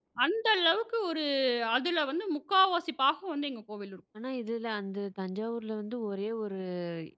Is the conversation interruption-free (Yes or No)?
Yes